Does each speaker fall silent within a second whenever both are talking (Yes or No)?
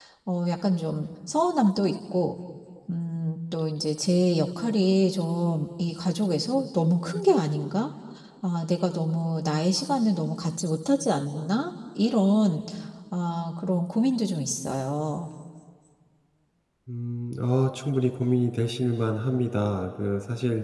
Yes